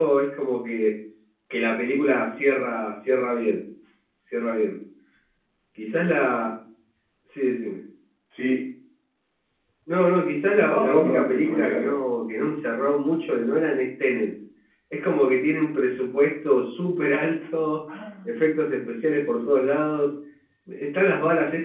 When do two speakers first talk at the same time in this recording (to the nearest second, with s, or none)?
11 s